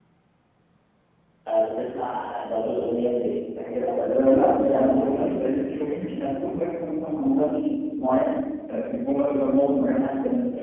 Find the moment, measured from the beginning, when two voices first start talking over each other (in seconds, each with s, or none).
4.1 s